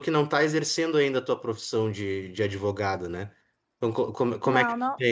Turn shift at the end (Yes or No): No